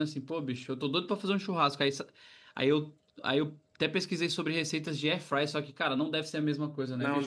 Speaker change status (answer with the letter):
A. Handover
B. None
A